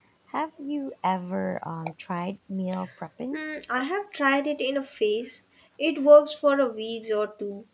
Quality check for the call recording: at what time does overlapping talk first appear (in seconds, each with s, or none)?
none